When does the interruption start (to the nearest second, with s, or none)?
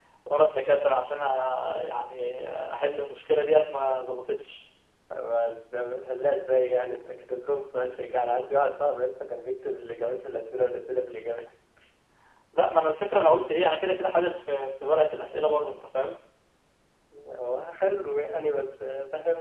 none